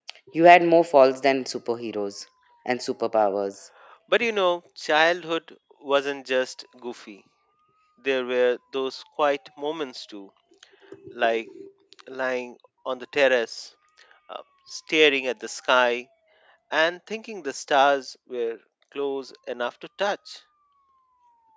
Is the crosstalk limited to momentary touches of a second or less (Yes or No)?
Yes